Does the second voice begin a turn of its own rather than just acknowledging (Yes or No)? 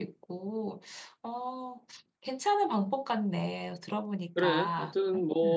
Yes